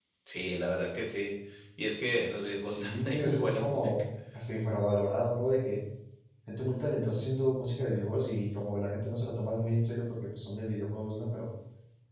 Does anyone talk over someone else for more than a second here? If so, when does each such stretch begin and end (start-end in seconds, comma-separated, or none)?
2.6-3.9